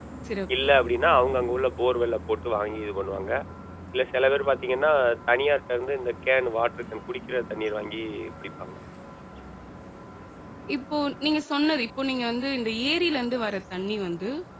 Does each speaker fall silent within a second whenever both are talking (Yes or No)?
Yes